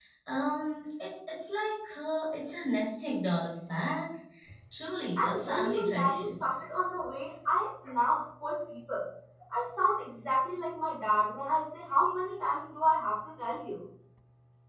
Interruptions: present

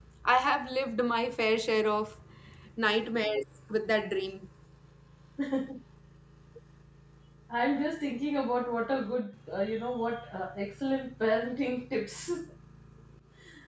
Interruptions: none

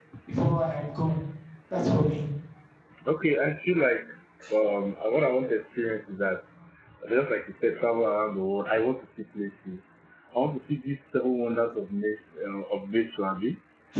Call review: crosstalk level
none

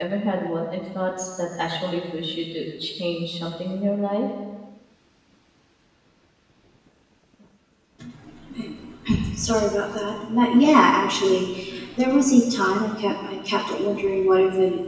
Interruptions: none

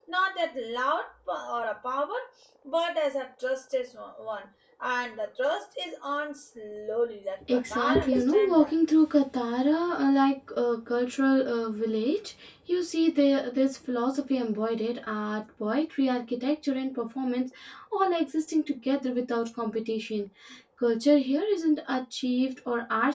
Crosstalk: present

